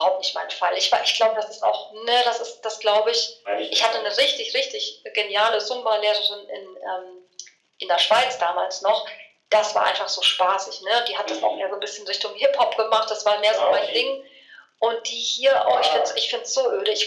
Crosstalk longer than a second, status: none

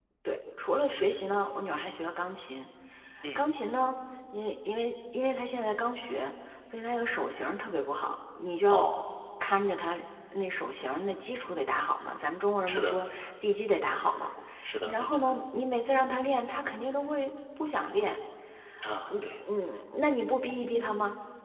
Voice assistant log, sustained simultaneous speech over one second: none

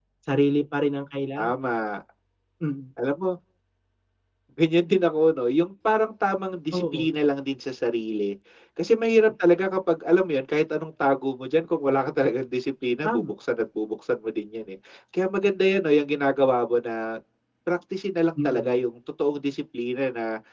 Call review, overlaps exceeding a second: none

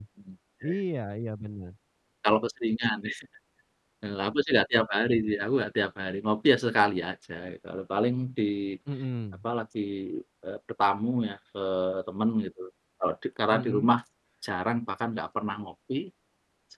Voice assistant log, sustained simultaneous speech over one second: none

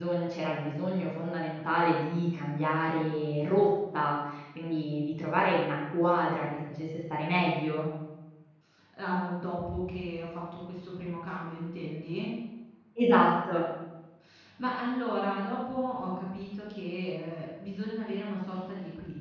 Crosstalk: none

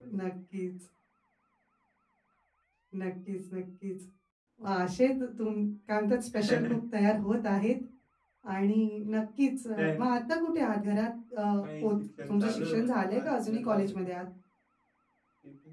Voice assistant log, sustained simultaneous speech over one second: present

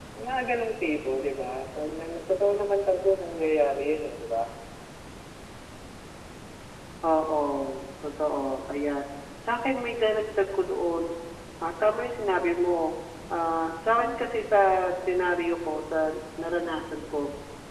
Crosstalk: none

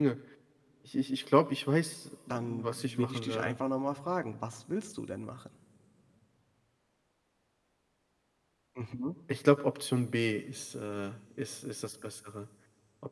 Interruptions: present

